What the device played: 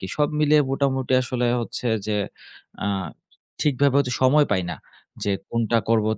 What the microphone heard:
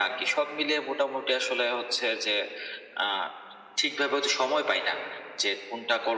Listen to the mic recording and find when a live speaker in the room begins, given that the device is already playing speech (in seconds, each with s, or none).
none